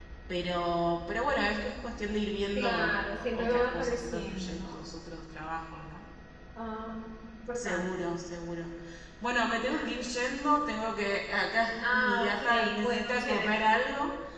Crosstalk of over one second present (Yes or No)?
Yes